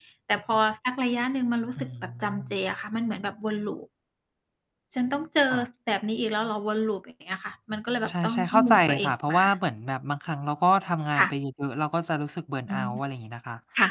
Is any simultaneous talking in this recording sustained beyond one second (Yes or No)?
Yes